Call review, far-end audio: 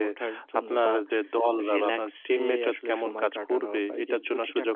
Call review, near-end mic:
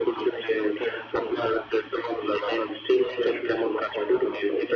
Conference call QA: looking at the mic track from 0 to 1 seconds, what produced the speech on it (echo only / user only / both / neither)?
echo only